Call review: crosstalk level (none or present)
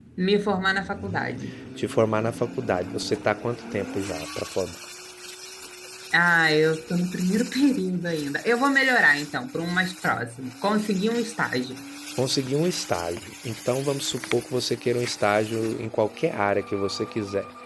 none